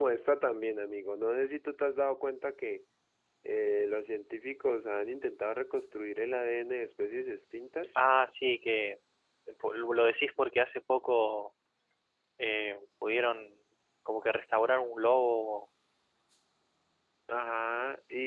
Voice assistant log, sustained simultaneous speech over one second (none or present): none